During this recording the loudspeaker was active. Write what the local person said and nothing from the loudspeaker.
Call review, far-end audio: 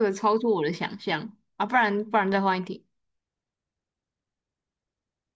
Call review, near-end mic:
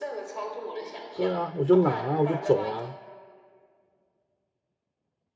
对啊，我就拿啊，我就走啊。

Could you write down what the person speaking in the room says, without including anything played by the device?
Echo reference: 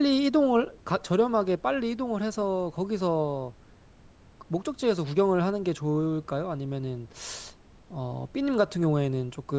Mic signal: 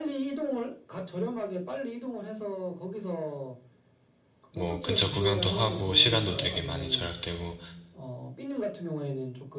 뭐 근처 구경도 하고 시간도 되게 많이 절약되고

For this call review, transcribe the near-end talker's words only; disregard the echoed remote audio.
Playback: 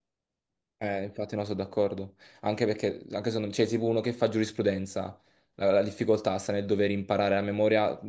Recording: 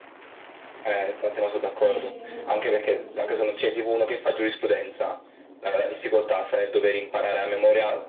Sì, esattamente, anch'io.

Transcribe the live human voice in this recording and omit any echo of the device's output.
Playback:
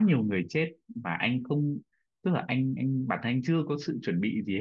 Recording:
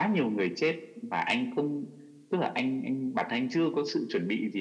none

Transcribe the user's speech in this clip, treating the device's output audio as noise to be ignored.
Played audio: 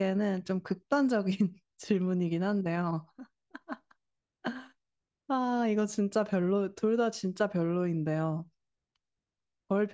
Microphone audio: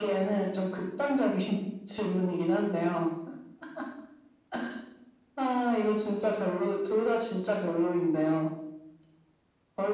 none

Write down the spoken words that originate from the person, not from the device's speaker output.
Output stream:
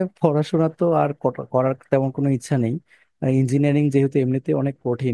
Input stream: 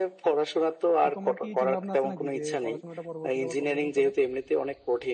তো তোমার কি চিন্তা ভাবনা আছে নাকি যে পড়াশোনাটা পরবর্তীতে আবার কন্টিনিউ করার

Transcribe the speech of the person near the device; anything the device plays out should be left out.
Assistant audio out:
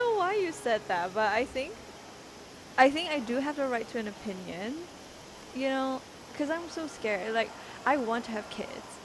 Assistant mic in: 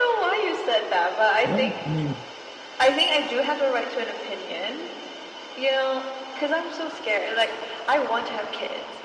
Well, I mean,

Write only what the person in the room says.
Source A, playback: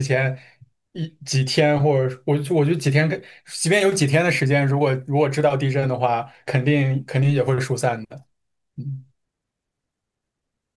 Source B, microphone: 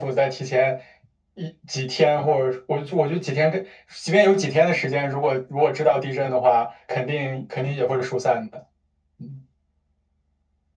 none

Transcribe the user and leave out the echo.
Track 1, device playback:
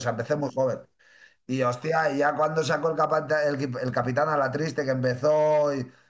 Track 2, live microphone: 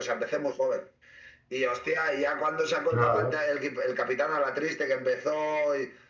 Claro,

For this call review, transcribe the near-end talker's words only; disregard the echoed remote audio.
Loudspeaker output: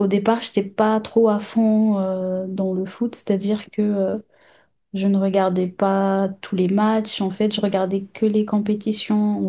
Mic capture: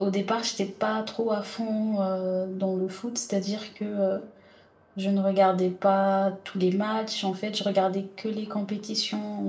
none

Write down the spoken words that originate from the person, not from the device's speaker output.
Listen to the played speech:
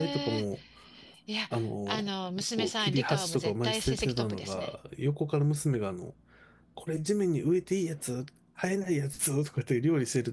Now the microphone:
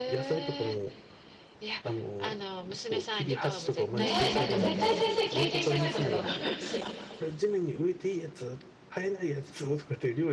ねえ、だって絶対先生経験してないことだと思いますよ。

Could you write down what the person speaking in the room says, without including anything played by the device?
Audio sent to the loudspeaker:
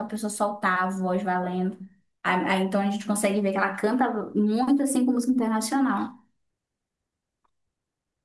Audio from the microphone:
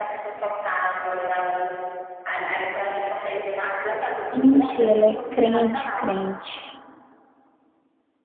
Gente, ela é crente, crente.

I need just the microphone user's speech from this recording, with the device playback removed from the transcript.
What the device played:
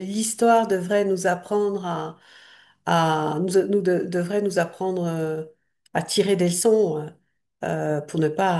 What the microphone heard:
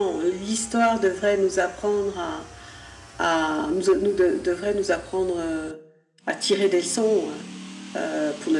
none

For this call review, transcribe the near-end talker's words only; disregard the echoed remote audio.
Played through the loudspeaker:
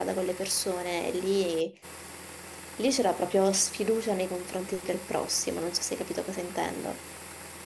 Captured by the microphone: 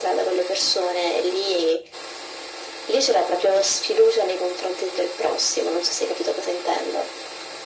none

